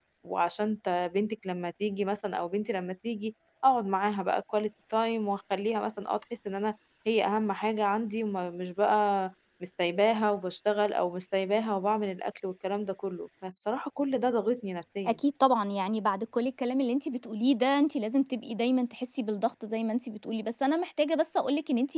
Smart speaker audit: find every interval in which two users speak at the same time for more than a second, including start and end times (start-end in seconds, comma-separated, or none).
none